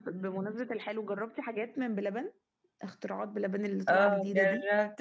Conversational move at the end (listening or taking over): taking over